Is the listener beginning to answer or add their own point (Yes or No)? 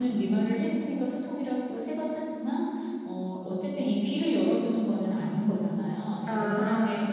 No